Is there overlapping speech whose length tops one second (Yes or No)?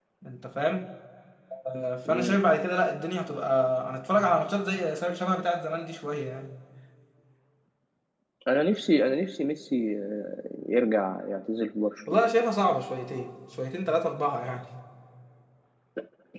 No